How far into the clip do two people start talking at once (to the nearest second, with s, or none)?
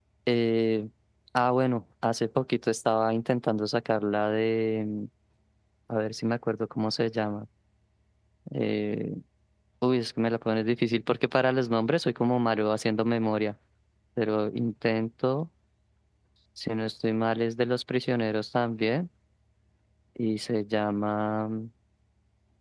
none